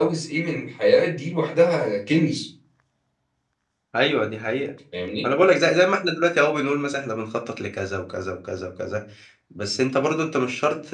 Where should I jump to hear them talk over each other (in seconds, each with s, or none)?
none